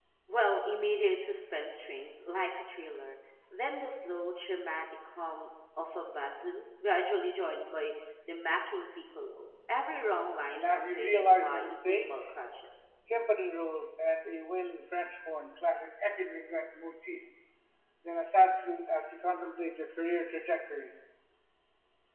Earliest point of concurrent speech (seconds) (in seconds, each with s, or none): 10.5 s